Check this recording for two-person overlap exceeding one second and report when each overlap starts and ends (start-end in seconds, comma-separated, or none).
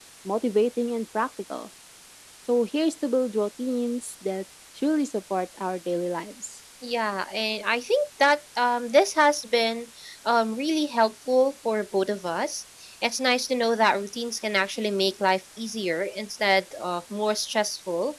none